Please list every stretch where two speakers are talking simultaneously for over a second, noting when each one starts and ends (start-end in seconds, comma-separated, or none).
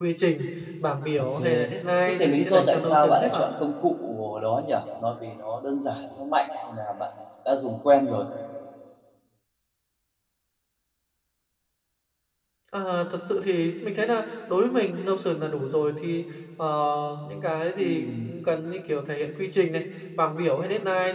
2.1-3.5